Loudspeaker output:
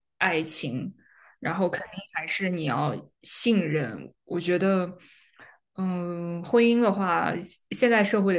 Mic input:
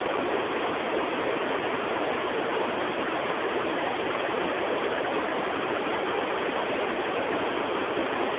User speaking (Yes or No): No